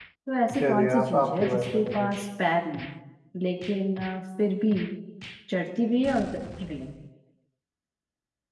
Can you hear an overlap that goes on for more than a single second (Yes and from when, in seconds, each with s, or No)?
Yes, from 0.6 s